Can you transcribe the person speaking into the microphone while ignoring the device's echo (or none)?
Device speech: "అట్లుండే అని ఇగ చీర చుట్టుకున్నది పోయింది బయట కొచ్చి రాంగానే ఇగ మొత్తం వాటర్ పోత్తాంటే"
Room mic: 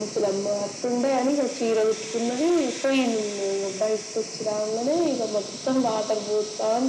none